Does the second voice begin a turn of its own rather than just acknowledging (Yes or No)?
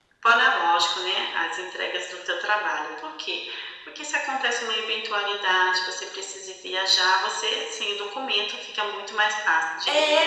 Yes